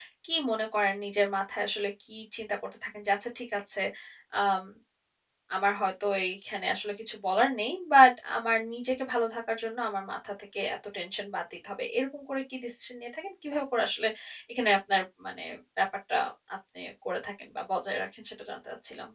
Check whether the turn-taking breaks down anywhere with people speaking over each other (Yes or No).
No